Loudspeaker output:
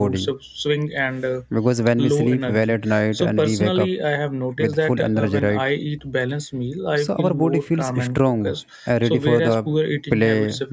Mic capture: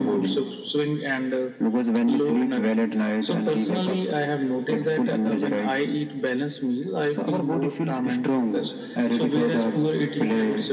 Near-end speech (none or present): none